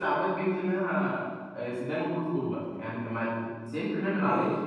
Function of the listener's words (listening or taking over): taking over